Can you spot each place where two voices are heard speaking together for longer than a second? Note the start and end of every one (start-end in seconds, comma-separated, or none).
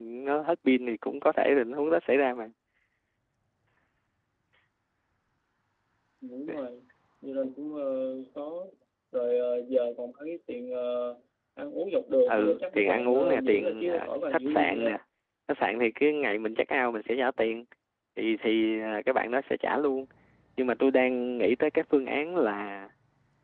12.3-14.9